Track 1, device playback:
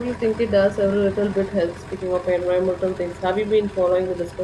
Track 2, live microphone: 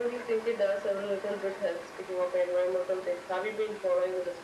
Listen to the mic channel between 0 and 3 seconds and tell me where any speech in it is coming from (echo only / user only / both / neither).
echo only